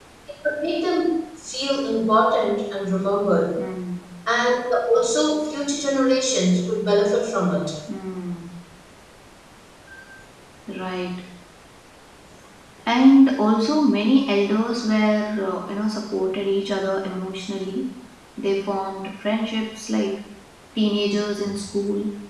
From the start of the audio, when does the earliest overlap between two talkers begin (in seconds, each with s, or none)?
none